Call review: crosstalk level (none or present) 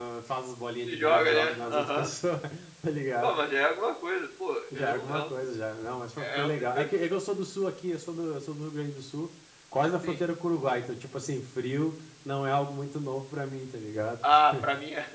present